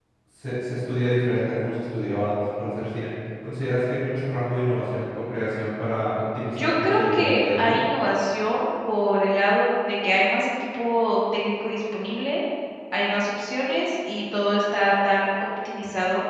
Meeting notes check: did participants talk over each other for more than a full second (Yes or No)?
Yes